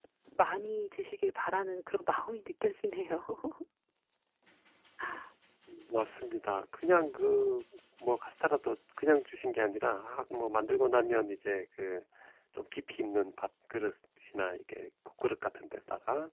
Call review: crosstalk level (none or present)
none